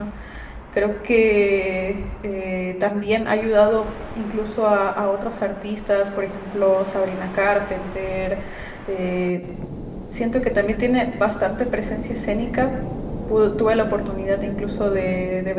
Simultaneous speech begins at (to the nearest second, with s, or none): none